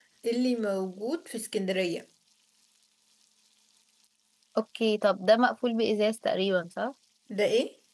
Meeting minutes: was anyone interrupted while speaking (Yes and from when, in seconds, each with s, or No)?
No